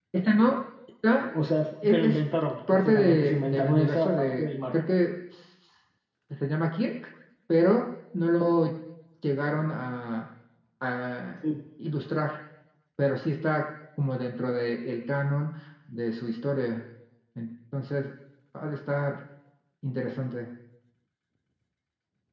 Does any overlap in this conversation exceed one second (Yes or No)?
Yes